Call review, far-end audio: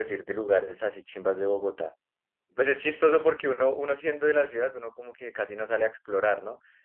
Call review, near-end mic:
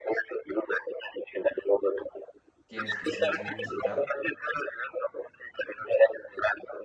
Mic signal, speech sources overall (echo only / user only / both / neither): both